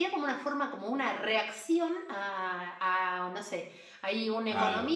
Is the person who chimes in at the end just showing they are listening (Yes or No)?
Yes